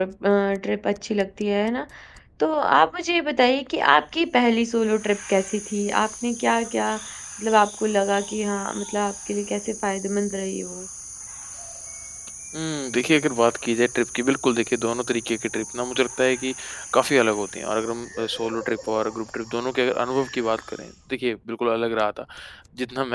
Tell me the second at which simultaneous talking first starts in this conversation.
none

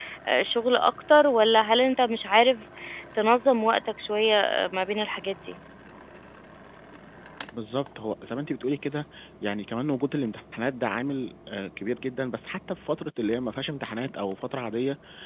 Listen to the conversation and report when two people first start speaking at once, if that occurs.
none

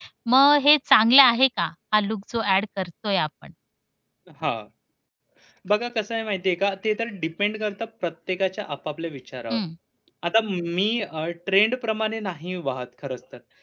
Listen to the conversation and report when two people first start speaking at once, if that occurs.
none

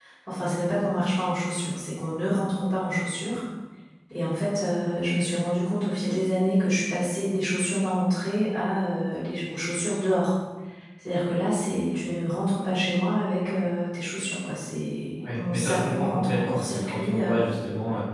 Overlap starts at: 15.2 s

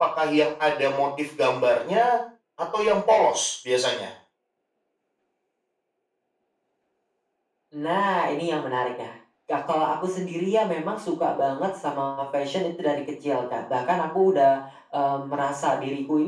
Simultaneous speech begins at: none

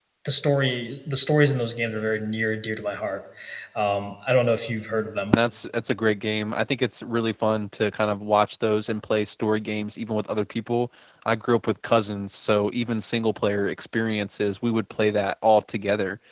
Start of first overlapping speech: none

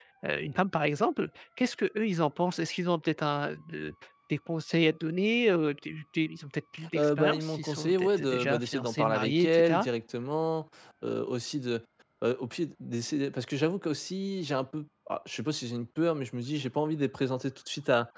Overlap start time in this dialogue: 7.0 s

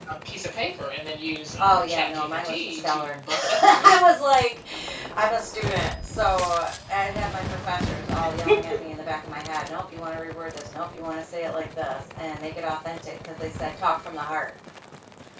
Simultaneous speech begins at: 1.6 s

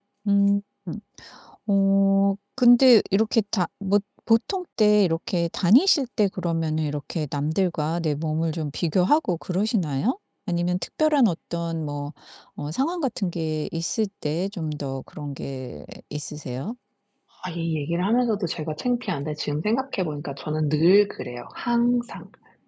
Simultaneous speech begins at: none

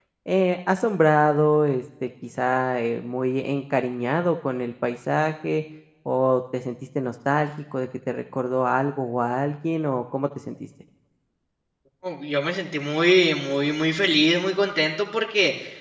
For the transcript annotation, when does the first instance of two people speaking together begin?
none

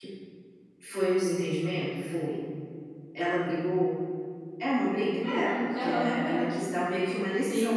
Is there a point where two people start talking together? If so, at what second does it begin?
5.2 s

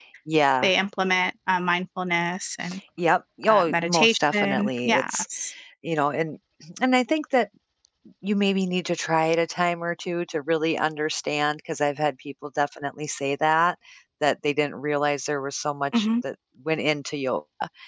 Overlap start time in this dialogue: 3.5 s

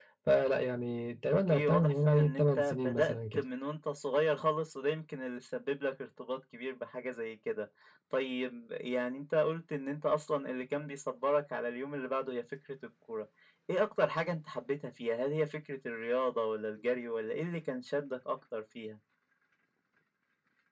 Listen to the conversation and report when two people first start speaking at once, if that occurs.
1.5 s

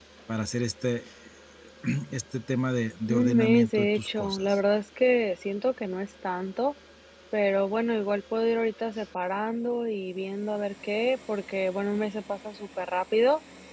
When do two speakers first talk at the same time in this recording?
3.1 s

